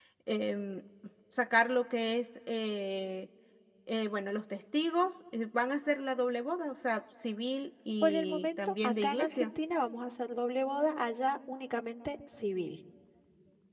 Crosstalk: present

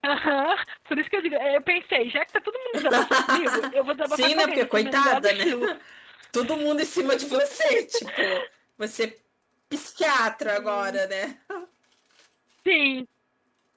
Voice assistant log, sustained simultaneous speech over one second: present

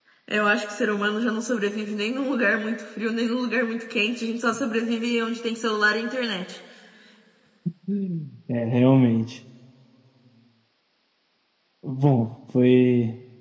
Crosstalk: none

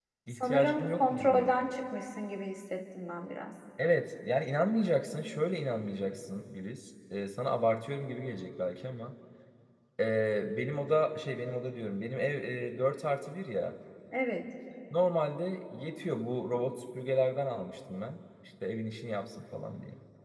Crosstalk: present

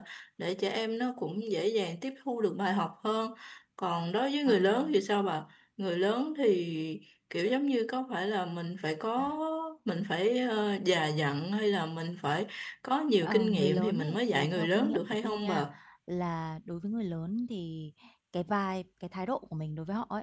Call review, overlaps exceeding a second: present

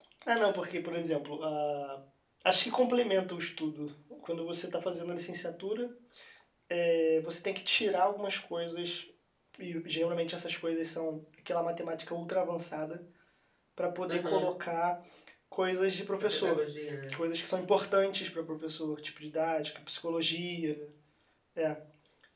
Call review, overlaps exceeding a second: none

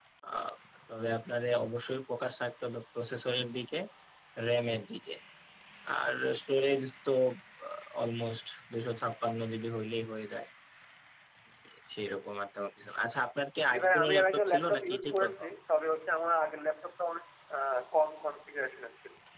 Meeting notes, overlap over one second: present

